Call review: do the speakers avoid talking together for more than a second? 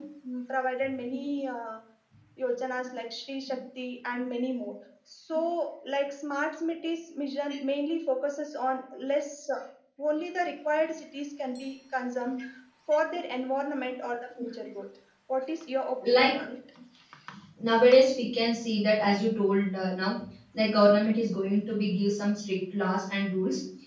Yes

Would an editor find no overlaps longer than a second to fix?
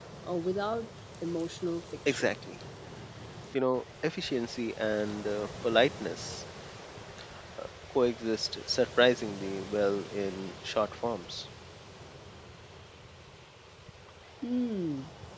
Yes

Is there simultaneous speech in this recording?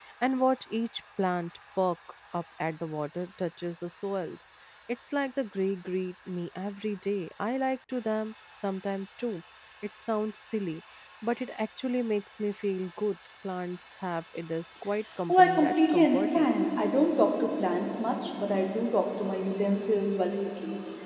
Yes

